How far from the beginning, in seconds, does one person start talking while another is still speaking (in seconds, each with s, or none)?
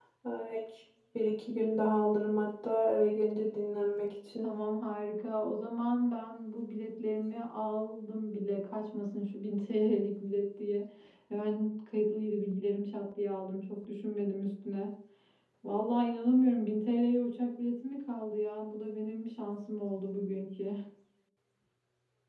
none